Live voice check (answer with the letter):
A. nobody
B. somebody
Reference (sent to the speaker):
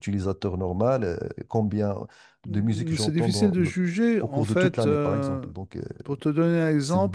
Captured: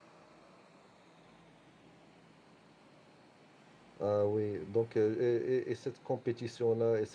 B